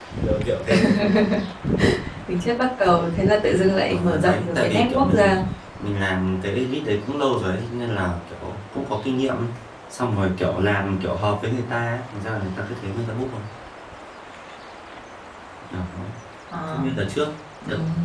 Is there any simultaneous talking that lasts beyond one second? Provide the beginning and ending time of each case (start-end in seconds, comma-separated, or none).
3.9-5.3